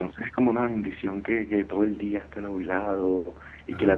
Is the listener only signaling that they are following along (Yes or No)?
Yes